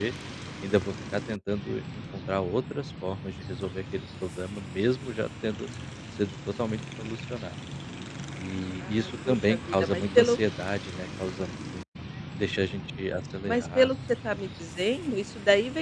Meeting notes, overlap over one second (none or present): present